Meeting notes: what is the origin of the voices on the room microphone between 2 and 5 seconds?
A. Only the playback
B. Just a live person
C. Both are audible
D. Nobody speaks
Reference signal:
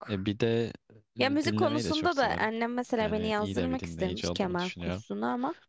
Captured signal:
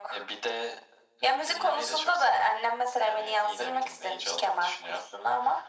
A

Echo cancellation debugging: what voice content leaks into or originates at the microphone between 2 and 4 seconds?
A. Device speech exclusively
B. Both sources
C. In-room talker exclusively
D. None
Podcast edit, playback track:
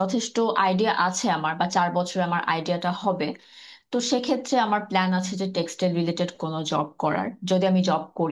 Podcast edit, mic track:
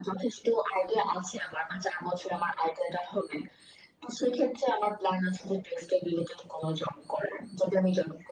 A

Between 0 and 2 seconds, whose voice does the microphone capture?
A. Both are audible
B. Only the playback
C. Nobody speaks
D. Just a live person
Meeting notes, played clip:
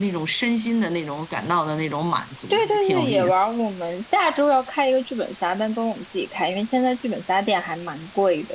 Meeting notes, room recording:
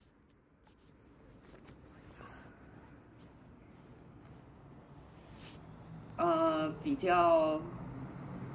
C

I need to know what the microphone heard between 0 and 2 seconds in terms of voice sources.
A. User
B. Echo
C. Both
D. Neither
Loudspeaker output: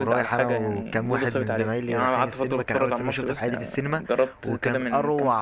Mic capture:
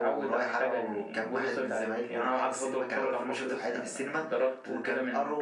B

